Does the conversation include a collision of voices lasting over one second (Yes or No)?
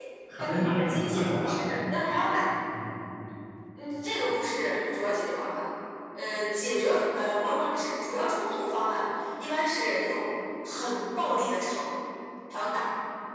Yes